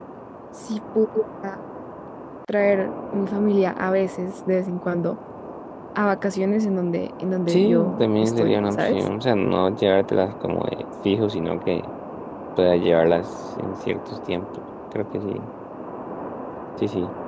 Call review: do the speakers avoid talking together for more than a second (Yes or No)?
No